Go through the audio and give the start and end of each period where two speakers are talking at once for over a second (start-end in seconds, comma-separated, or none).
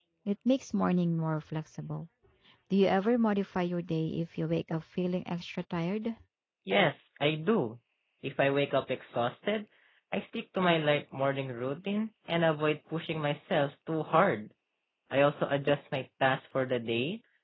none